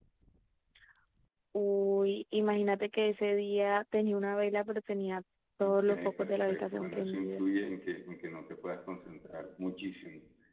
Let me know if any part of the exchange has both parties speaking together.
Yes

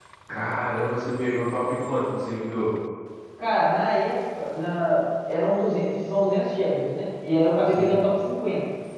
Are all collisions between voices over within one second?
Yes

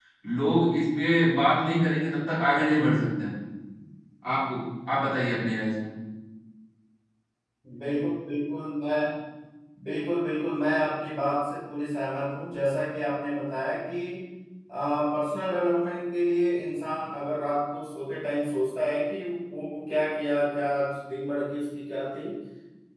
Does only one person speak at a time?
Yes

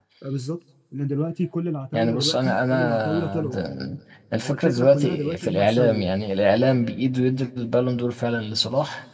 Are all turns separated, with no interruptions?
No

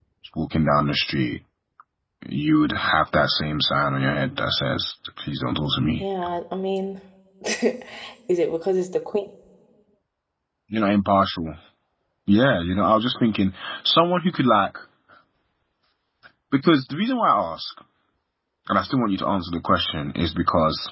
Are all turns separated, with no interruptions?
Yes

